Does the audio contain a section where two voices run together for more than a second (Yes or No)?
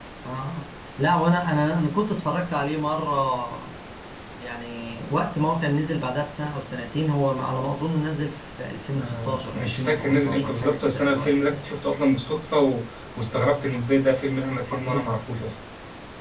Yes